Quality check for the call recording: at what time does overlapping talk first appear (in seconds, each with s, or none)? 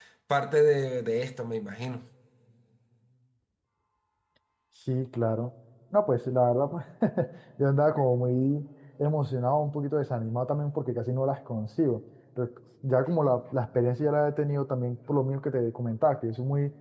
none